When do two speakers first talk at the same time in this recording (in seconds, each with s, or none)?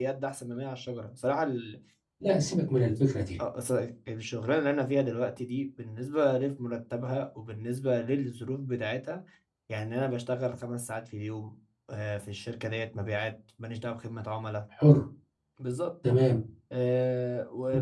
none